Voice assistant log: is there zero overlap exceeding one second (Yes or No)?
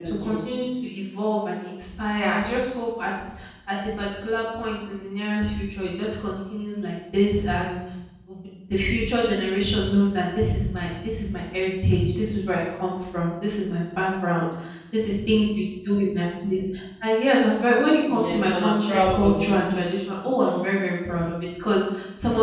No